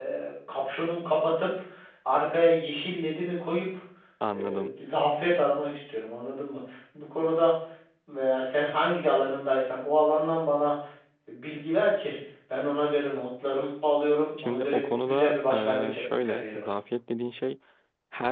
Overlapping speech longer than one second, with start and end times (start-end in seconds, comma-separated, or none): 14.4-16.6